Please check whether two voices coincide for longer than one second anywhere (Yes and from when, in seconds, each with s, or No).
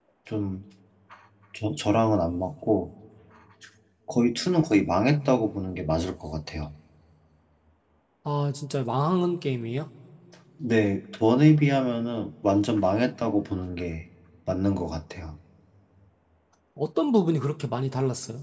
No